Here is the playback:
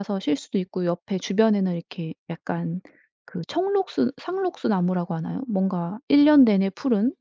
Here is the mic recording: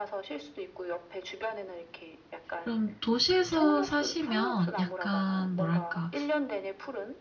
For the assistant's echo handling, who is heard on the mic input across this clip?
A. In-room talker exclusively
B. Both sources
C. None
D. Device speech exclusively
B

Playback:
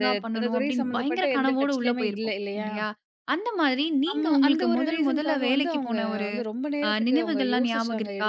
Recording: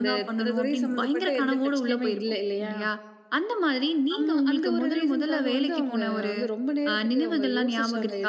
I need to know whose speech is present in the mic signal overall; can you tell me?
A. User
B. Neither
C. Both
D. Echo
D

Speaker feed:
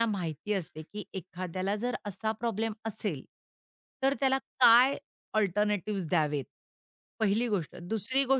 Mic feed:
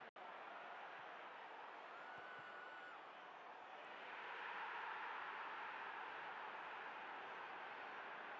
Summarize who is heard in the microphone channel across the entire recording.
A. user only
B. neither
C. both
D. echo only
B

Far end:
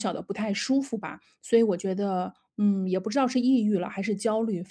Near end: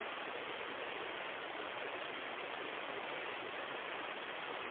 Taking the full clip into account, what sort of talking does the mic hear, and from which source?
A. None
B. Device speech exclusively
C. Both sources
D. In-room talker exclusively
A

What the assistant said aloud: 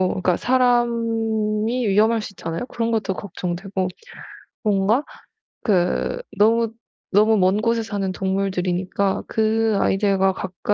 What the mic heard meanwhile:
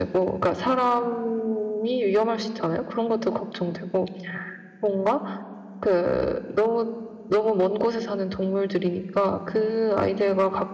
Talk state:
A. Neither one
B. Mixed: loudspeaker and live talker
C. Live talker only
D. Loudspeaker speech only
D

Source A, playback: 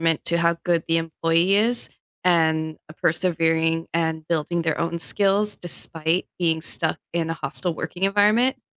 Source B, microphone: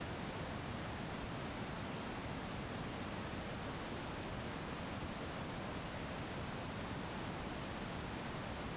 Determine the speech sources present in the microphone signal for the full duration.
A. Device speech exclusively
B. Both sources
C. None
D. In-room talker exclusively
C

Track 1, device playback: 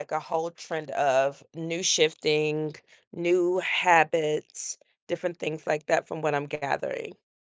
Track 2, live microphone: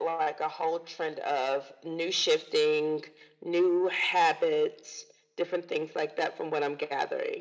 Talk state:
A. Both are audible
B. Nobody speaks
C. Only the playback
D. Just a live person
C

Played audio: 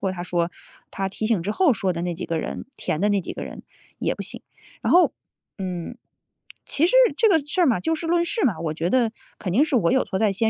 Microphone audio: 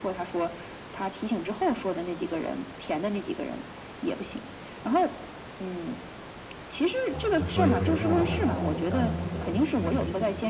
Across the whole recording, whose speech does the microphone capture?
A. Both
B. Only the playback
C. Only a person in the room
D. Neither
A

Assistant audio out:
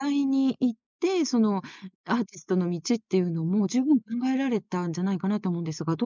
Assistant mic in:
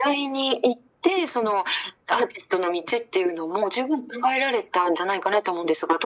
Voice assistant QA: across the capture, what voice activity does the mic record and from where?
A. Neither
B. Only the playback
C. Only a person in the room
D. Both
B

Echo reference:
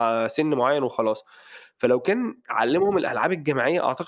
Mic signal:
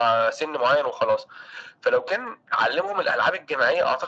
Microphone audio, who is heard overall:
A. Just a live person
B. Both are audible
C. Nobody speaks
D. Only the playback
D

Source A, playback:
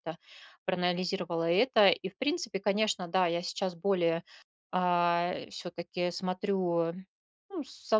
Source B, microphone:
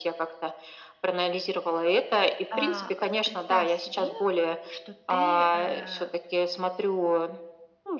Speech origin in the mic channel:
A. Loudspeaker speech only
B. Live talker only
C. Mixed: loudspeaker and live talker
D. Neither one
C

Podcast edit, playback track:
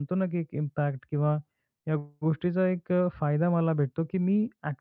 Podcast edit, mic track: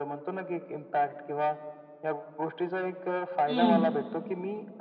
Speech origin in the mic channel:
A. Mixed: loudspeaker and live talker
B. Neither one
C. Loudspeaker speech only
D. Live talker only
A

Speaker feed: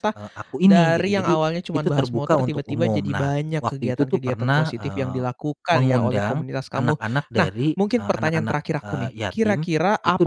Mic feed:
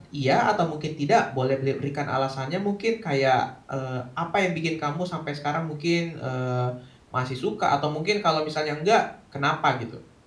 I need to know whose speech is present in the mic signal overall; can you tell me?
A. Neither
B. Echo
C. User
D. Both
C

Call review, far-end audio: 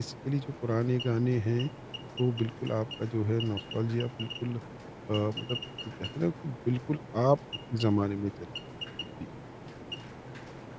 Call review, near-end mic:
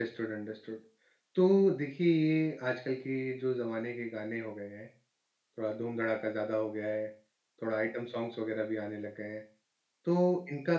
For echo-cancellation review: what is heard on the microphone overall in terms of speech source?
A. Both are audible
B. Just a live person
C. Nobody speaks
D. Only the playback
B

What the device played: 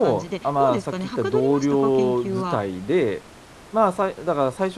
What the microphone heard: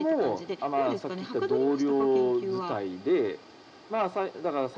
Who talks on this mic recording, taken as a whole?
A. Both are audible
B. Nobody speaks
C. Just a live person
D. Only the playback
D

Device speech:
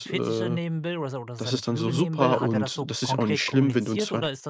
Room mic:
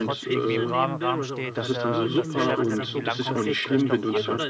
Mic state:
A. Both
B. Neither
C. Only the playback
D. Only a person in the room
A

